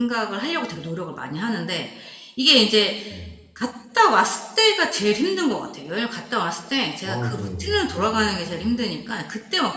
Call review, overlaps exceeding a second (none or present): present